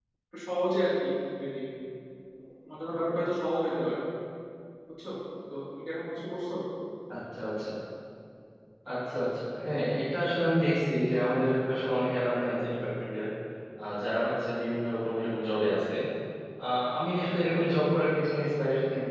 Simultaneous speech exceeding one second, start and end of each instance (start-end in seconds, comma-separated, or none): none